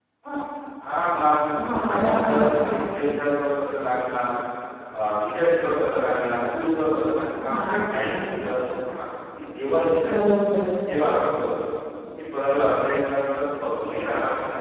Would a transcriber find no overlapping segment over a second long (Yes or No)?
No